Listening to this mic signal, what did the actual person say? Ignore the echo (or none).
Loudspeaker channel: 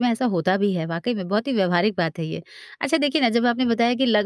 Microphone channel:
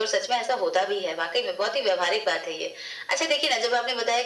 none